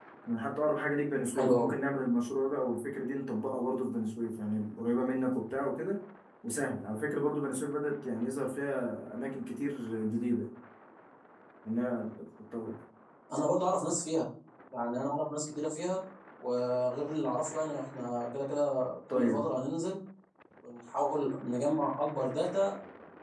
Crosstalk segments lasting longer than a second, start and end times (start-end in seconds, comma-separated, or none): none